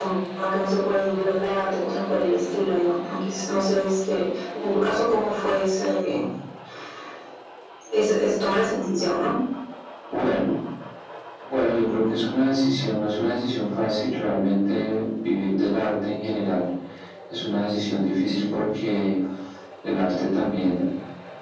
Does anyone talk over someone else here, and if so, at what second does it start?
none

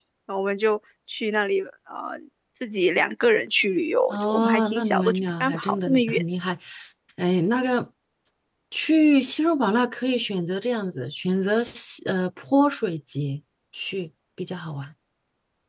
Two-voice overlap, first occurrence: 4.1 s

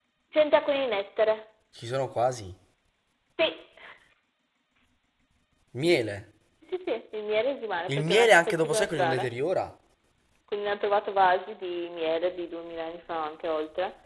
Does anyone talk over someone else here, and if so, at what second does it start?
7.9 s

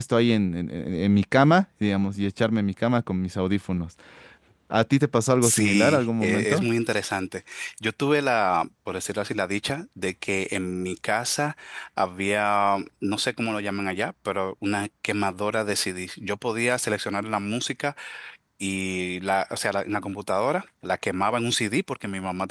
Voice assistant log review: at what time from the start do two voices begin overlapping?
5.4 s

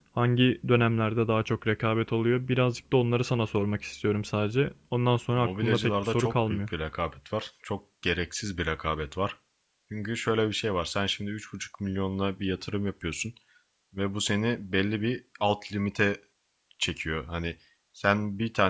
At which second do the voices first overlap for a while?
5.3 s

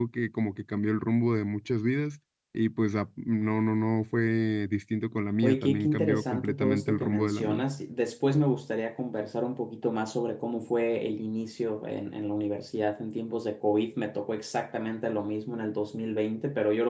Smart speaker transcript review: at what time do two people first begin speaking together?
5.4 s

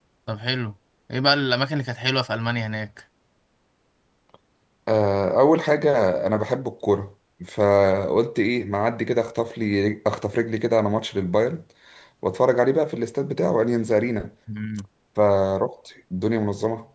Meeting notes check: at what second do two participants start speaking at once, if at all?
none

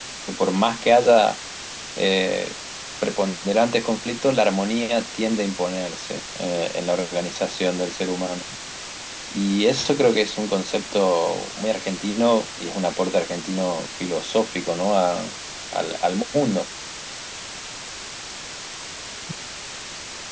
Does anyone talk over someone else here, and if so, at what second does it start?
none

